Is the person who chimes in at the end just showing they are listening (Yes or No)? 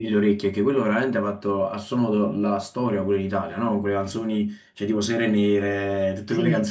Yes